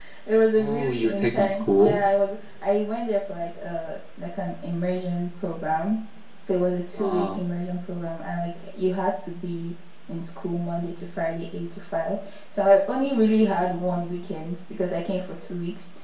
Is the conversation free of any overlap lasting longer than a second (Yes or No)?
No